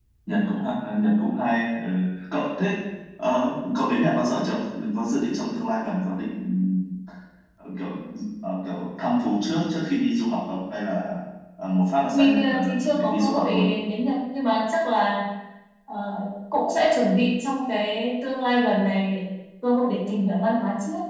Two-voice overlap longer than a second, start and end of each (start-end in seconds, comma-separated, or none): 12.1-13.5